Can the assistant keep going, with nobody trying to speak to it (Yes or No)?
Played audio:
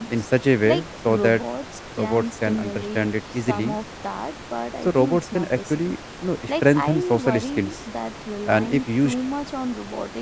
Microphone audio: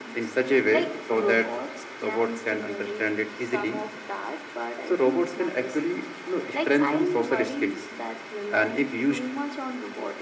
Yes